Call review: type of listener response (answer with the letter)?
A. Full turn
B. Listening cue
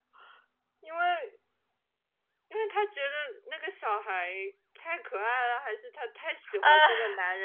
B